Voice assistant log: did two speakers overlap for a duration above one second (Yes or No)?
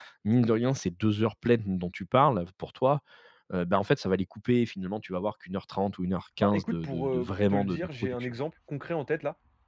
Yes